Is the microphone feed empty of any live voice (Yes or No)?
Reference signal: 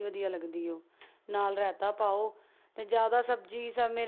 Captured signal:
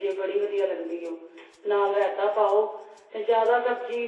Yes